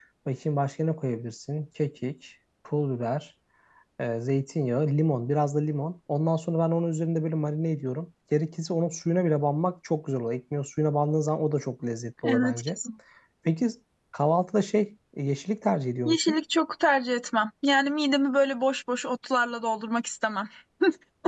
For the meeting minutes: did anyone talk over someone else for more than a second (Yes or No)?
No